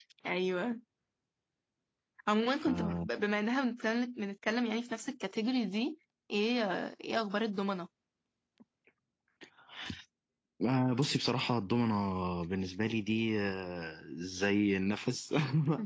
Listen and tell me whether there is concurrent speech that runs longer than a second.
No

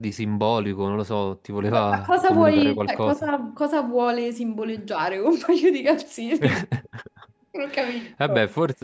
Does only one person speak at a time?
No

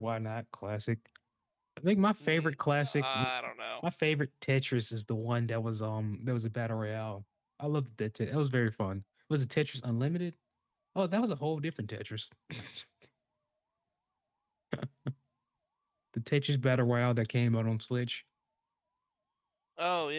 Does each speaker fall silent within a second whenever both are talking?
Yes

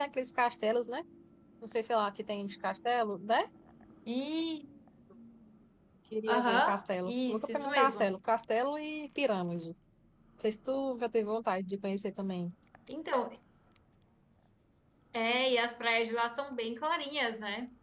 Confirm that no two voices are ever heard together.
No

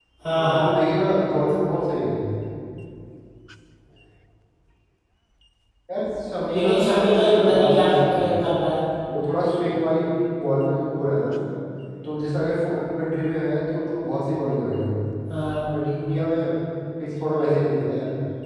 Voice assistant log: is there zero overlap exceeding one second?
No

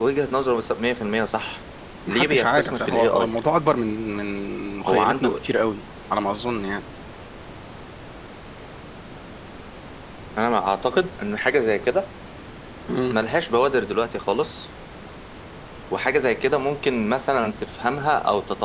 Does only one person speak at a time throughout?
No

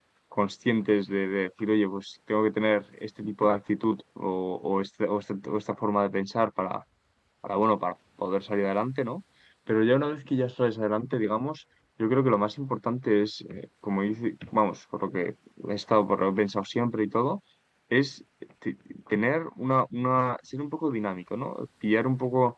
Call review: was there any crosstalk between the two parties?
No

